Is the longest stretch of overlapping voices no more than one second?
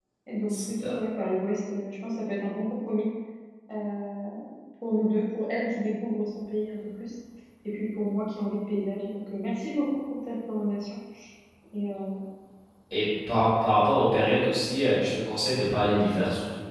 Yes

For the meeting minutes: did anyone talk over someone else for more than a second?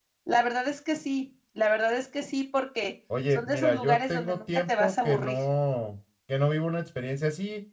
Yes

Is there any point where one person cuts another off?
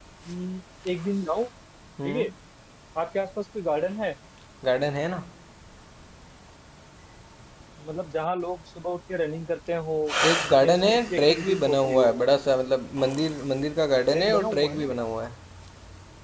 Yes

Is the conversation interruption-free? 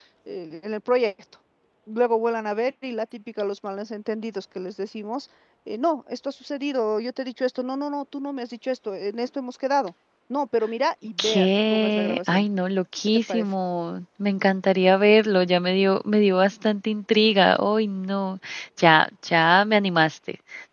No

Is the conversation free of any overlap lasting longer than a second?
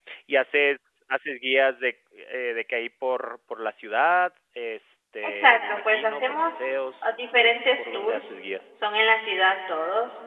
No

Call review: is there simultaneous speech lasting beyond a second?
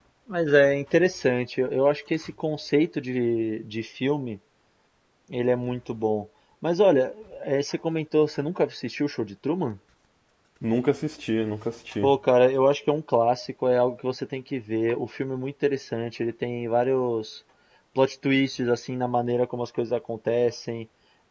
No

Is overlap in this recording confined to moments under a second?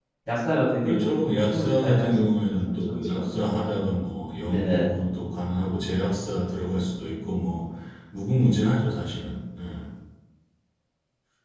No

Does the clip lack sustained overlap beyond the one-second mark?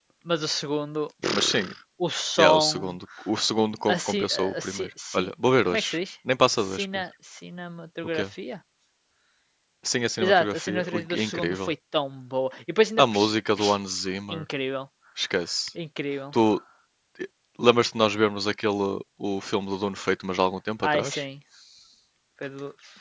No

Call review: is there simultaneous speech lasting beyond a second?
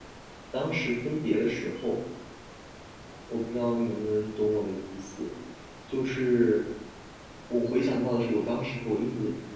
No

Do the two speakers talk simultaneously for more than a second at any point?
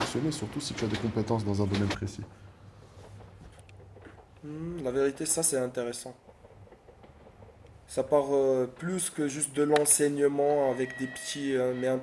No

